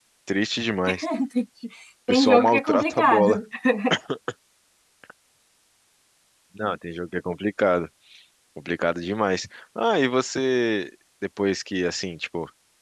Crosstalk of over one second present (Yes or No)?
Yes